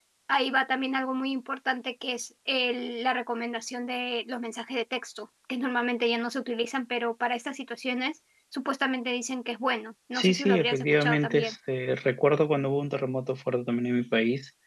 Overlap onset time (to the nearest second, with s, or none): 10 s